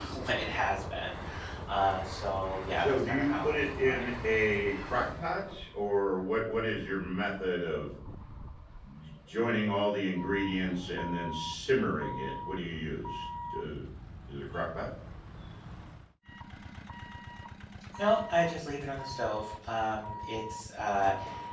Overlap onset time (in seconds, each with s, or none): 2.8 s